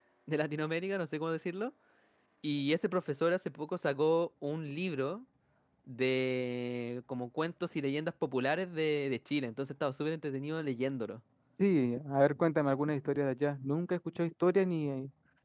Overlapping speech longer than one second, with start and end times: none

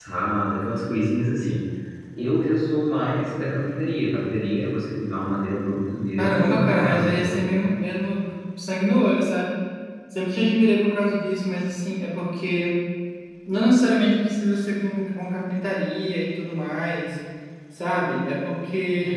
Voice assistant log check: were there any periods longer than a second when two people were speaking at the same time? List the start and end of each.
6.2-7.5

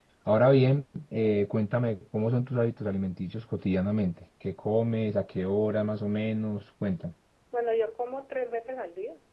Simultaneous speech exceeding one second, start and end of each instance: none

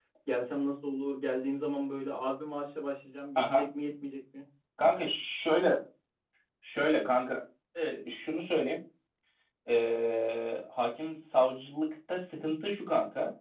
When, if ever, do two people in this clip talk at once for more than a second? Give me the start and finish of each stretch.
none

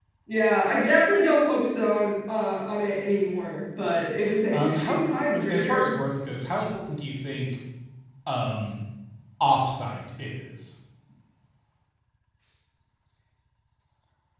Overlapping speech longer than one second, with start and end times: 4.5-6.0

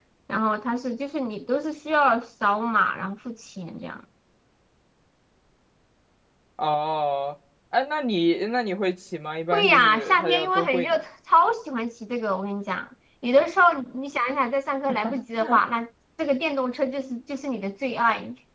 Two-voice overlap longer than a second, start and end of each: 9.5-11.0

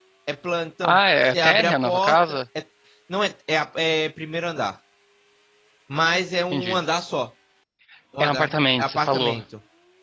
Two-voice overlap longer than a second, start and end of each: 0.8-2.4, 8.2-9.4

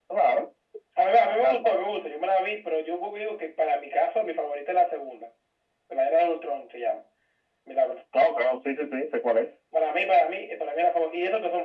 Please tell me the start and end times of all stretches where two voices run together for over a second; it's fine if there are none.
none

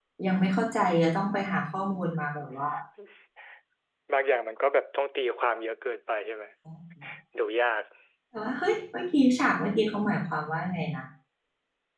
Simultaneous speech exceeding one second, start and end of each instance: none

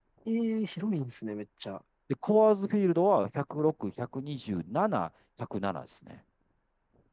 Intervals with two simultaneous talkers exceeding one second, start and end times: none

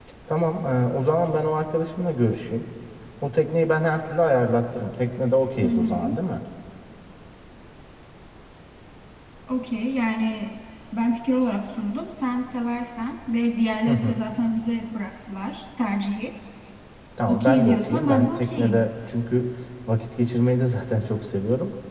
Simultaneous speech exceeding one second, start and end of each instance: 17.3-18.9

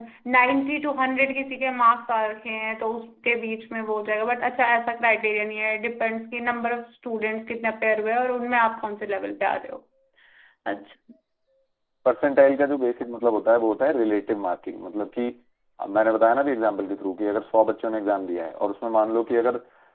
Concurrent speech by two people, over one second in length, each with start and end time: none

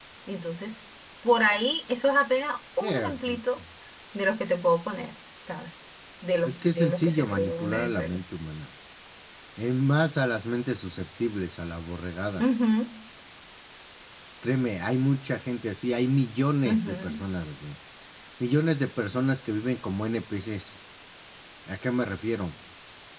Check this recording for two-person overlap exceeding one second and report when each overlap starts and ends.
6.5-8.2

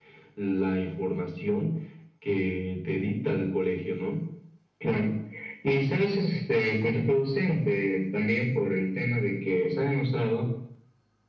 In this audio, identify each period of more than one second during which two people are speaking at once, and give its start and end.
none

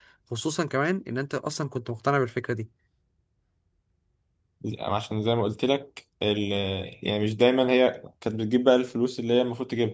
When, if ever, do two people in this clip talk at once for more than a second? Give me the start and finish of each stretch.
none

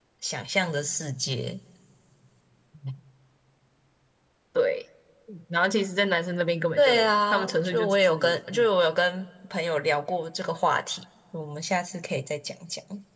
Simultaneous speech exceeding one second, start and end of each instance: 6.8-8.7

